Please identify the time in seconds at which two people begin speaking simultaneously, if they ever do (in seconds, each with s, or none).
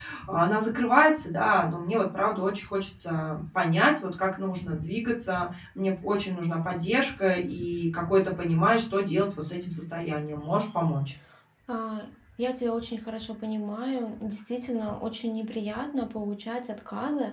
none